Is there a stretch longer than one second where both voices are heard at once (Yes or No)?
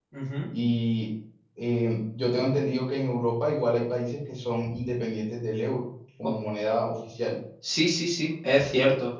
No